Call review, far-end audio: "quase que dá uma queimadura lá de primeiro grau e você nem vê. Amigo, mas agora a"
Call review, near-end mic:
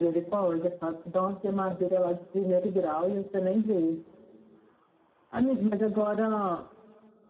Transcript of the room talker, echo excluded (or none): none